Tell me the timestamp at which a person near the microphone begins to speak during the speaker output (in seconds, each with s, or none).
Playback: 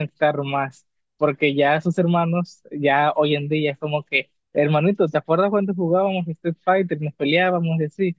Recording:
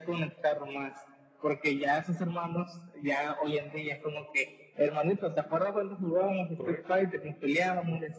6.6 s